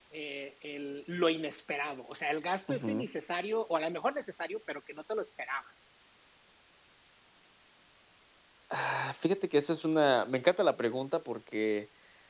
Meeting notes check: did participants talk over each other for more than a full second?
No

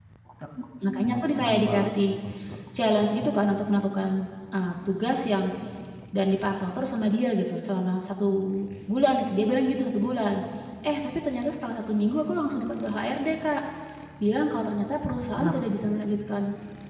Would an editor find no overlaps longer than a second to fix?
No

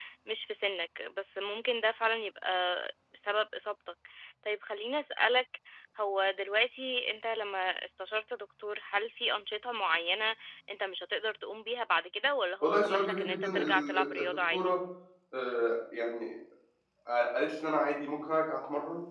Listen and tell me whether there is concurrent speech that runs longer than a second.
Yes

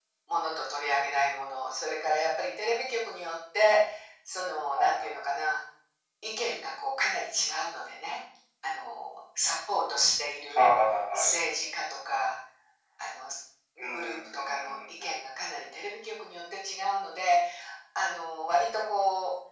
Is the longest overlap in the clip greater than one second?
Yes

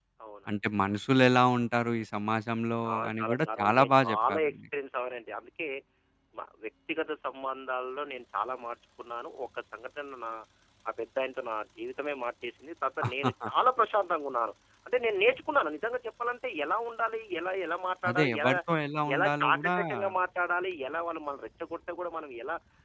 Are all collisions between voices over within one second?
No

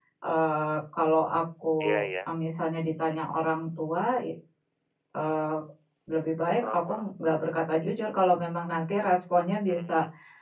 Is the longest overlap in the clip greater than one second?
No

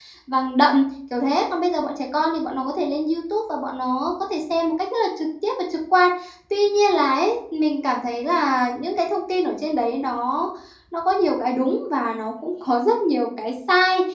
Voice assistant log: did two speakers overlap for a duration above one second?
No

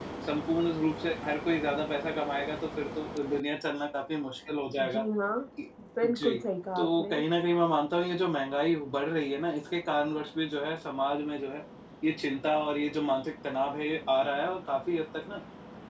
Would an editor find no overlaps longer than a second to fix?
Yes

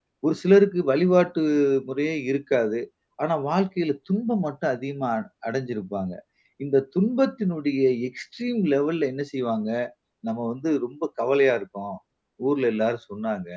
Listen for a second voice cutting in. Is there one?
No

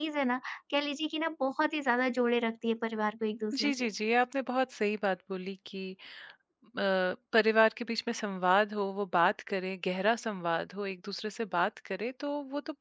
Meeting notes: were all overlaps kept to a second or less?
Yes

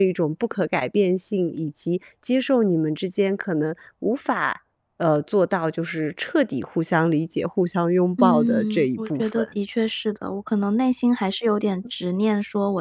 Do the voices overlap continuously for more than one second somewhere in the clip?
Yes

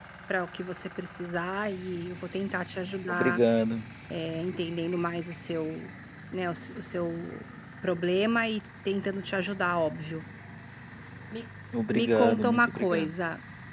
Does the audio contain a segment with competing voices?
Yes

